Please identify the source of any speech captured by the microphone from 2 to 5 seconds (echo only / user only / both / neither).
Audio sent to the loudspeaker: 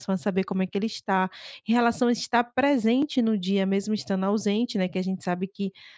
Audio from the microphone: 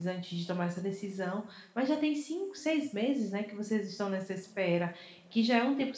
user only